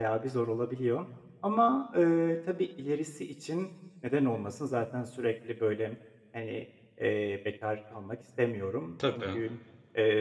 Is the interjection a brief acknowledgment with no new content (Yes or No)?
Yes